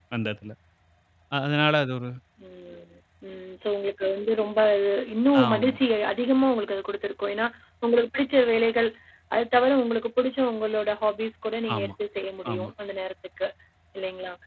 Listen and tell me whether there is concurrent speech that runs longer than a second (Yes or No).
No